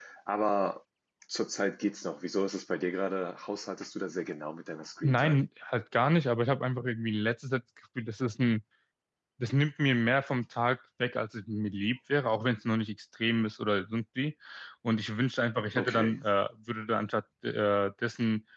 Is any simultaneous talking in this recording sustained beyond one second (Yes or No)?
No